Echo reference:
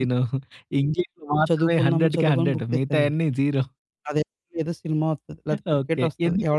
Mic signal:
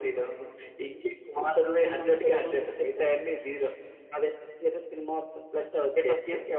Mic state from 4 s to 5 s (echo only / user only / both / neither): echo only